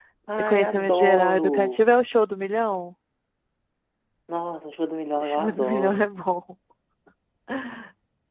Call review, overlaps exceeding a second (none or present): present